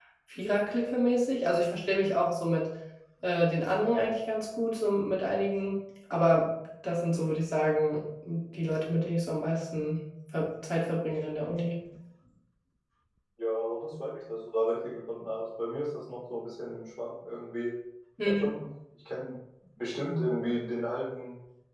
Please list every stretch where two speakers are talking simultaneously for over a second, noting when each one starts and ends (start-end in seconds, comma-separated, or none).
none